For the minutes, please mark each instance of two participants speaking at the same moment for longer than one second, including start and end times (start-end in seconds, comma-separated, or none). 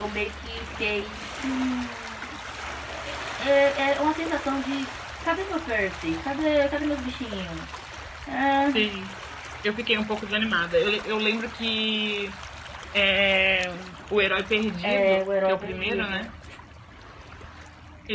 14.8-16.3